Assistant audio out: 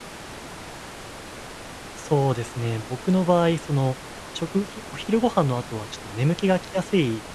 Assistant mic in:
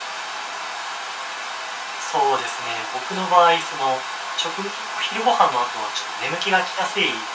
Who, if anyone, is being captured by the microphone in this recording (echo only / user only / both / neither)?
echo only